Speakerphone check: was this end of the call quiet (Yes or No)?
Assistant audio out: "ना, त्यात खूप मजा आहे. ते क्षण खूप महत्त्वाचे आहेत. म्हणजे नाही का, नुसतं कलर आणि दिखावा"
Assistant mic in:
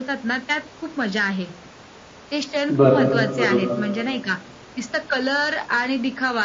No